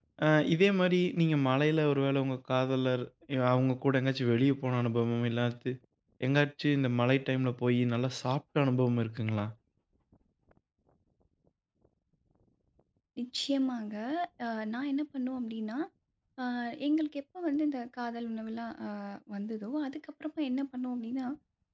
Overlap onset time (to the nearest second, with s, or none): none